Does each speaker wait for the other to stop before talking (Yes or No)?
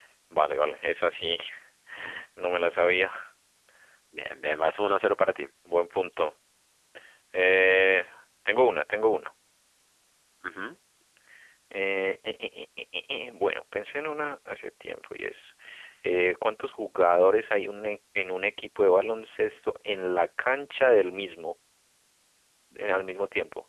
Yes